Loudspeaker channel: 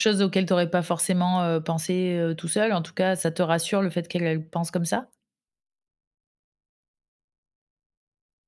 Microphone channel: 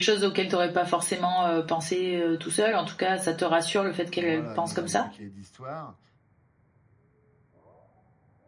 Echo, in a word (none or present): present